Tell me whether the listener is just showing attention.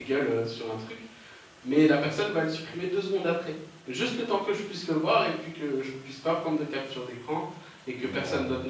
Yes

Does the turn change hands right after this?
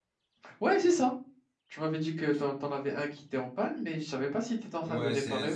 Yes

